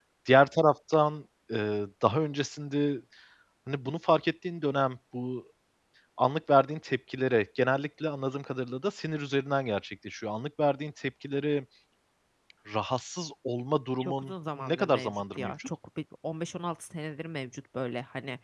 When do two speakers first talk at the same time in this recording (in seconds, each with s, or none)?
14.0 s